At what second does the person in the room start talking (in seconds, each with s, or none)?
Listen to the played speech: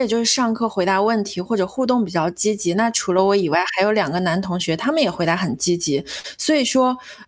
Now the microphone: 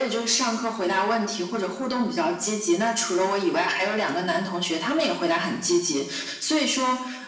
none